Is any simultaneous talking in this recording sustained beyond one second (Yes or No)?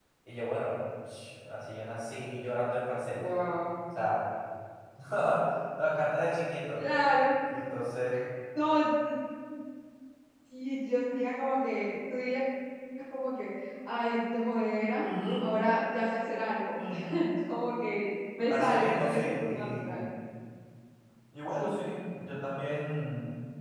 Yes